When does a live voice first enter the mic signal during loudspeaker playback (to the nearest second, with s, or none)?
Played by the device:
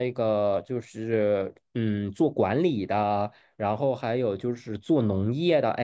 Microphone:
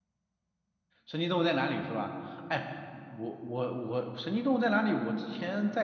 1 s